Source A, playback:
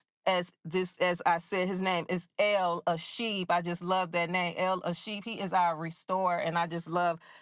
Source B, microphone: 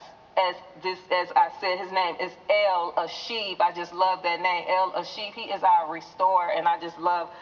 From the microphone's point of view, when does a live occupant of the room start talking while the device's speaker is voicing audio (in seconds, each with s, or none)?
none